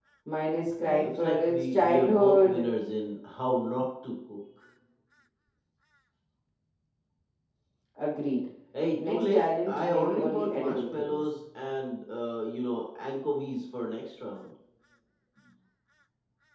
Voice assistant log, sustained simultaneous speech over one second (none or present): present